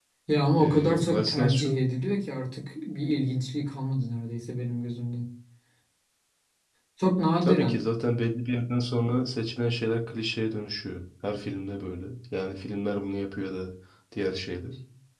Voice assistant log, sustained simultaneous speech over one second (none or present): present